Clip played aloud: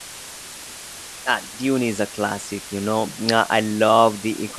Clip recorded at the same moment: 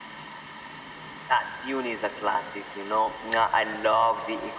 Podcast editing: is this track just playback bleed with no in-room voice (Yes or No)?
Yes